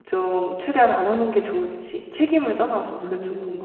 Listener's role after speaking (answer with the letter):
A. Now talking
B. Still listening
A